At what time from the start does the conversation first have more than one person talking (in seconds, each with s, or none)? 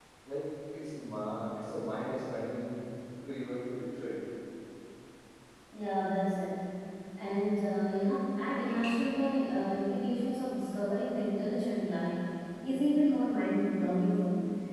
none